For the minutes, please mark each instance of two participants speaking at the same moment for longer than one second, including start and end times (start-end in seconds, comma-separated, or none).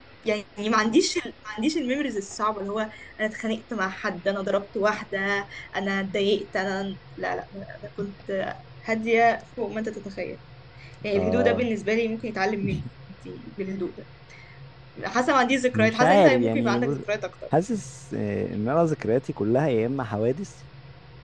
15.7-17.0